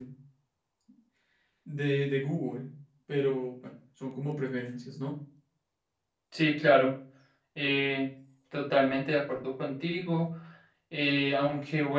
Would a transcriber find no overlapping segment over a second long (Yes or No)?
Yes